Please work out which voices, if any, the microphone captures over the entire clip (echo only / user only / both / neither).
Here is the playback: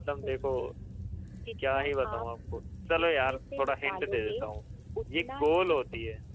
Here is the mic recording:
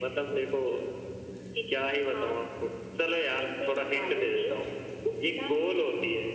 echo only